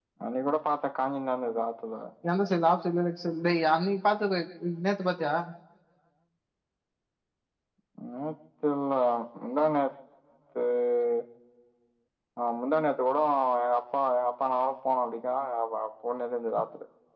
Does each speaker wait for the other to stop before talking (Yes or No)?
Yes